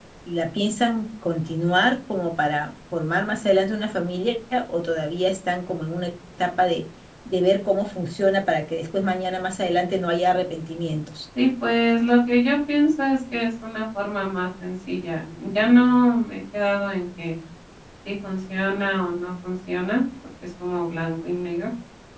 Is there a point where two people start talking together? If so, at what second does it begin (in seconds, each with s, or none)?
none